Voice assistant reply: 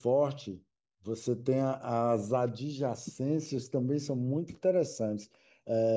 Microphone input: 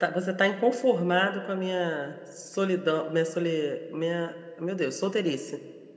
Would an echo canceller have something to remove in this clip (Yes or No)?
No